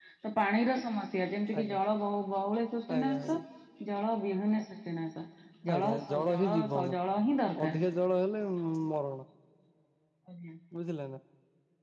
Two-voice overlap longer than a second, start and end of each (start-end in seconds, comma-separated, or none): 5.7-7.0